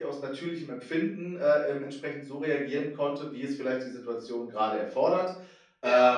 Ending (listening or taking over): listening